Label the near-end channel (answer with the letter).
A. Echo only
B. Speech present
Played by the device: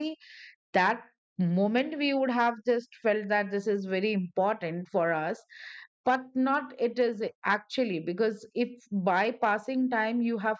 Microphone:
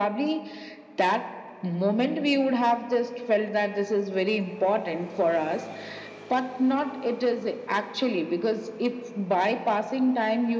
A